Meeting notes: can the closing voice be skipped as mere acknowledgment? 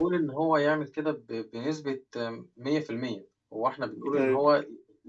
Yes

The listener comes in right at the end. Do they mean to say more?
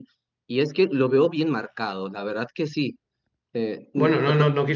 Yes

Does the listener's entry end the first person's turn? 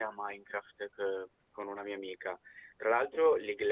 No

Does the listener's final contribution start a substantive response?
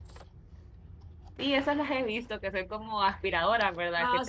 Yes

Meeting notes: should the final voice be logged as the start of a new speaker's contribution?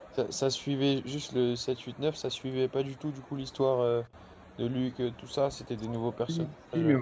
Yes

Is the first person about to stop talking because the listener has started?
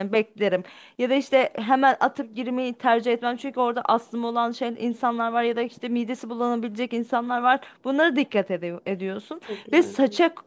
No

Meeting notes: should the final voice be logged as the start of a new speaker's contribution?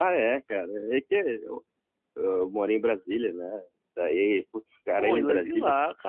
Yes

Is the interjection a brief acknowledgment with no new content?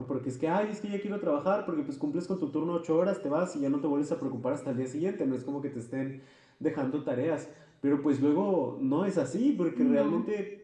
Yes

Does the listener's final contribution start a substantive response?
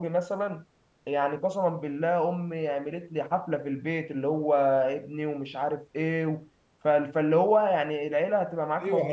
Yes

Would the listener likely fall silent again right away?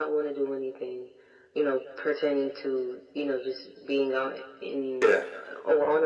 Yes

